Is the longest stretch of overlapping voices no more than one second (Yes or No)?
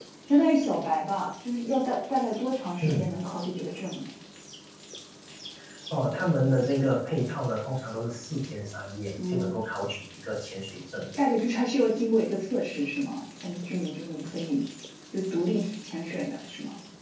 Yes